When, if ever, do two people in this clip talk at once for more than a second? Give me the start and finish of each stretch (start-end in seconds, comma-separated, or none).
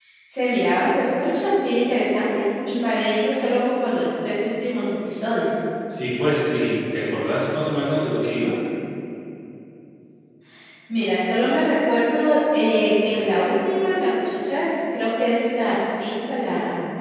none